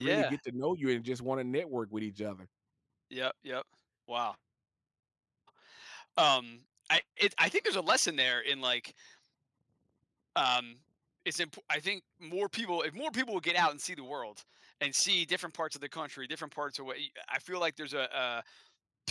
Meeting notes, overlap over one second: none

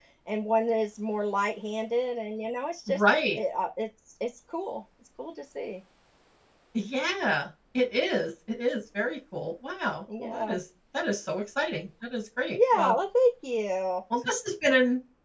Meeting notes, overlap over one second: none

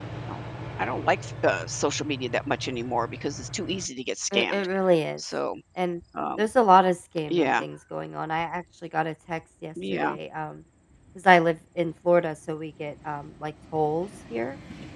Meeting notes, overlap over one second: none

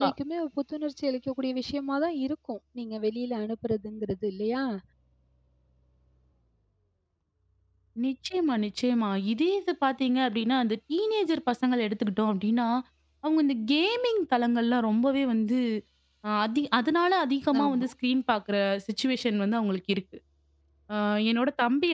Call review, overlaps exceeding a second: none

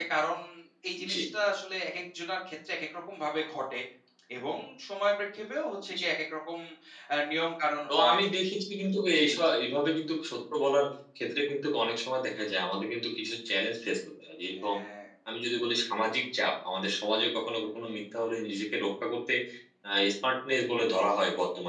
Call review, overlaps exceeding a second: none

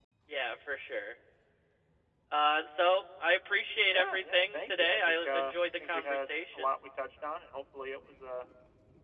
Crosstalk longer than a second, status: present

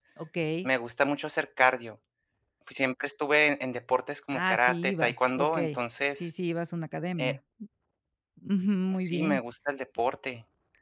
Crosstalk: present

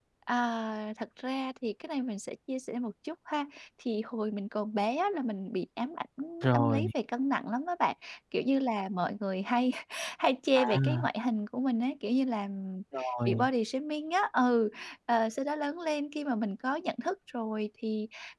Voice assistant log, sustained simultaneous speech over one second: none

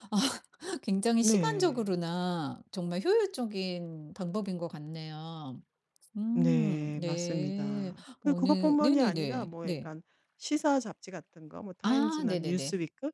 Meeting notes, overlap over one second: present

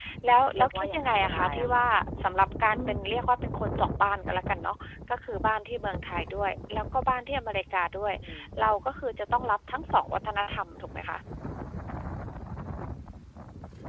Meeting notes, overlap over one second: present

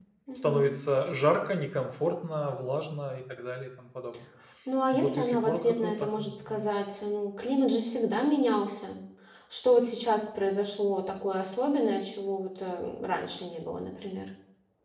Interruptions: present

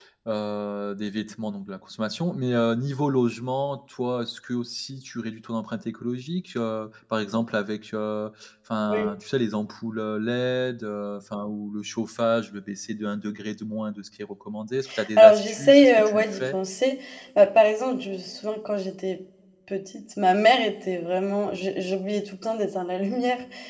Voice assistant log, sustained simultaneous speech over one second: present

